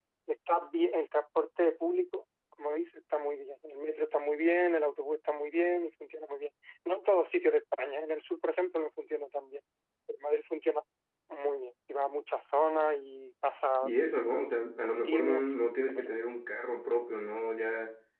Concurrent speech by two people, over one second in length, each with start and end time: 14.8-16.2

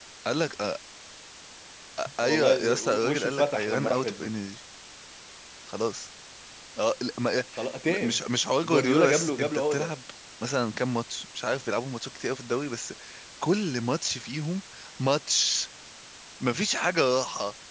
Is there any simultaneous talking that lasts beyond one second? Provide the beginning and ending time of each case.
2.2-4.3, 8.6-9.9

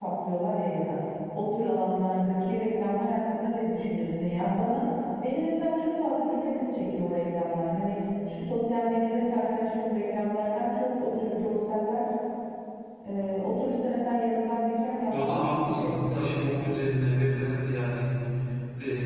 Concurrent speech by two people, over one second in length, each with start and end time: 15.1-16.5

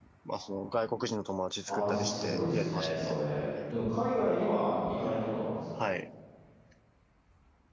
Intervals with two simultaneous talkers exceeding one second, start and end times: 1.7-3.1

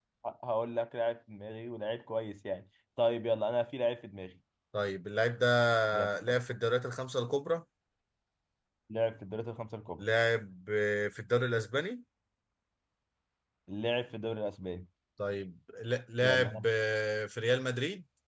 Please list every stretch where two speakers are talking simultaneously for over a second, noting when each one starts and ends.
none

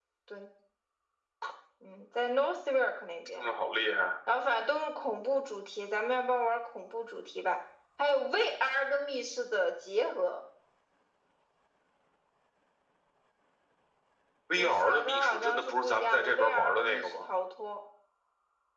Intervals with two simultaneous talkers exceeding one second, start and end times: 14.6-17.2

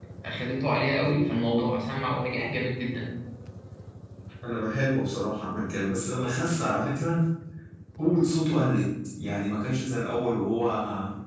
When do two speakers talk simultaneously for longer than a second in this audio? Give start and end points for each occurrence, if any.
none

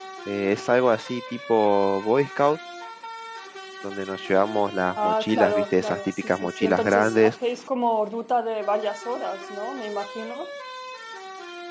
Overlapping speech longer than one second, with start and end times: 5.0-7.3

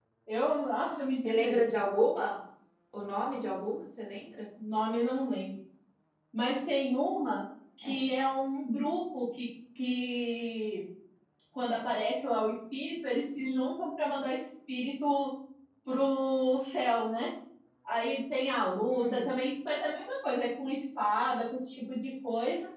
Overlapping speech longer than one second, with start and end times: none

